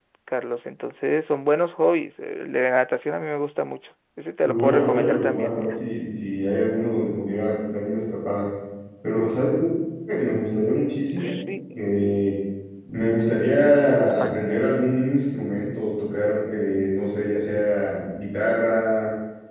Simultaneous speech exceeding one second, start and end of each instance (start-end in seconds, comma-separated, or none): 4.4-5.8